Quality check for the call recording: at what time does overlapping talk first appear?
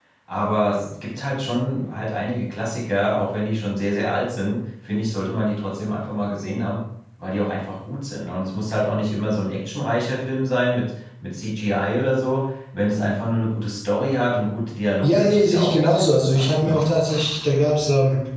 15 s

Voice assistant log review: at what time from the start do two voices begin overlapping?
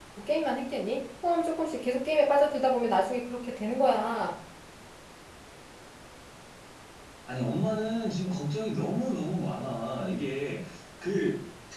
none

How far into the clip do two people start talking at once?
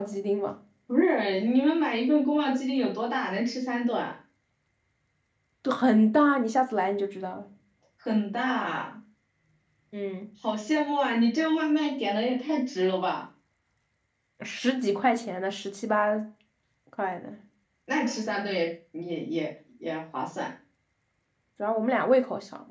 none

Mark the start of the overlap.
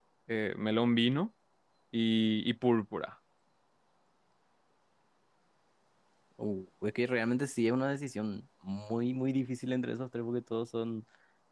none

